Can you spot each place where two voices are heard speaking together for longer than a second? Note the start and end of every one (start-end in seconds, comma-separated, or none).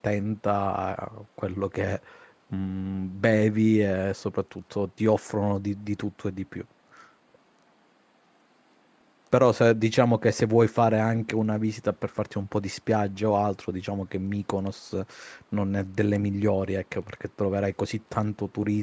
none